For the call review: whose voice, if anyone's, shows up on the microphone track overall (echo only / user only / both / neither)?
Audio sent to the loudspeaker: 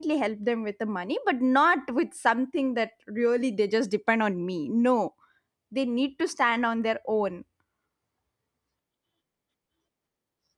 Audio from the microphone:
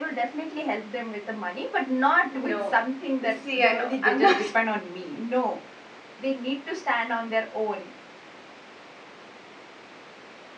both